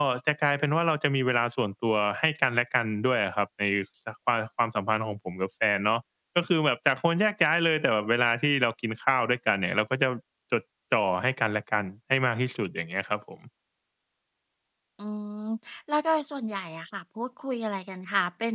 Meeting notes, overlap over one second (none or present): none